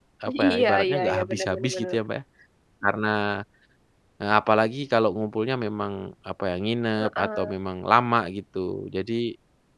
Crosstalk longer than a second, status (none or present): present